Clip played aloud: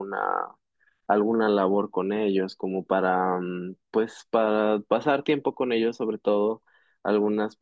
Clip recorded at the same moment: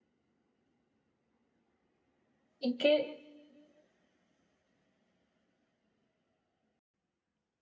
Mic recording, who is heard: user only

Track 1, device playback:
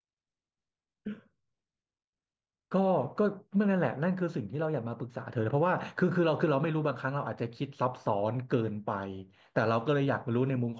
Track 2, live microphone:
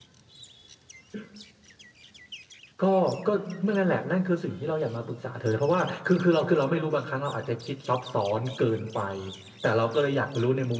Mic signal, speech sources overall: both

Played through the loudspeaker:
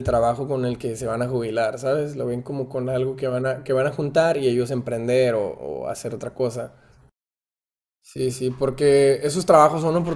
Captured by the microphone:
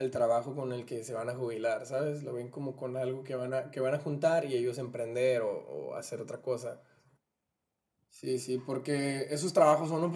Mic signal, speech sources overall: echo only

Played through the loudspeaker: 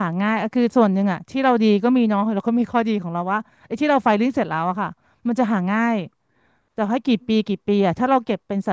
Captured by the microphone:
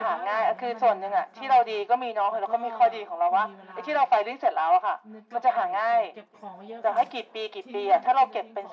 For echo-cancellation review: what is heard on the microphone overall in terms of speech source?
both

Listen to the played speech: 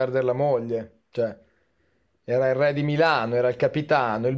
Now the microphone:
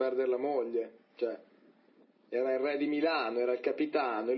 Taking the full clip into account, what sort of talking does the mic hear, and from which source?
echo only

